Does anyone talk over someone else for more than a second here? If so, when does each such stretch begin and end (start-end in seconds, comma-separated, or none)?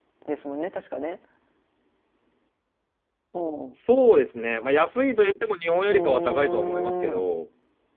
5.9-7.2